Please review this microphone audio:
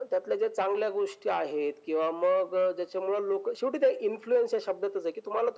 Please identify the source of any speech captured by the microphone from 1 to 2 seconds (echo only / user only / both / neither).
echo only